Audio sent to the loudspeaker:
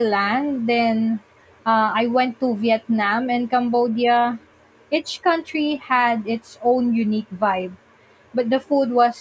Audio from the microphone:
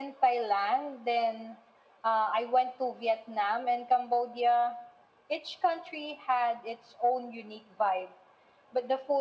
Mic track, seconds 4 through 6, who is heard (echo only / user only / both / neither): echo only